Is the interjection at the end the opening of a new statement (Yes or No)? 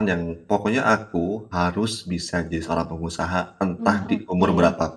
No